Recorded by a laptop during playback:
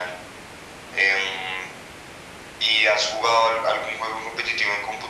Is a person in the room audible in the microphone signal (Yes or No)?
No